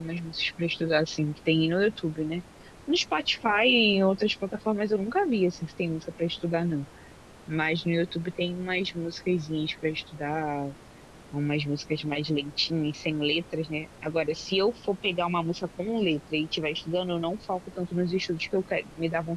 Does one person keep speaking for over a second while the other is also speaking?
No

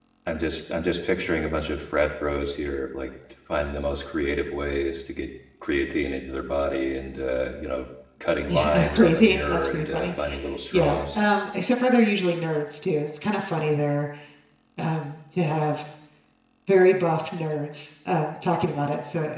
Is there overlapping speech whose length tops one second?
Yes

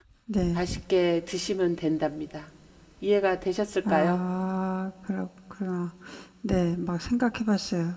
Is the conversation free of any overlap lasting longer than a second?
Yes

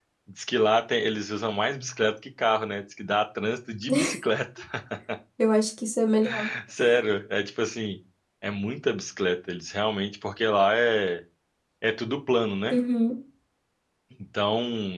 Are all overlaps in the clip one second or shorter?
Yes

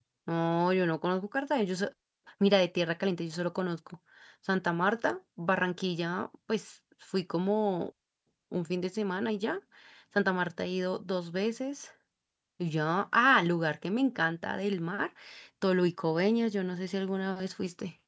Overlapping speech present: No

